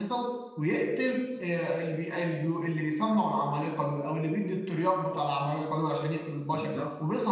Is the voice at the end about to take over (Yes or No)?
No